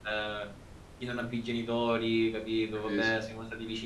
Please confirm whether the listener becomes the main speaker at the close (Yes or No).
No